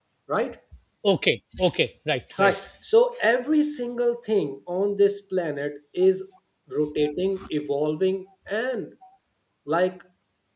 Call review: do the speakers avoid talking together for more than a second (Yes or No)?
Yes